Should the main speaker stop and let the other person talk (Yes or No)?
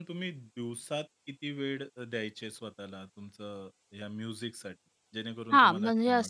Yes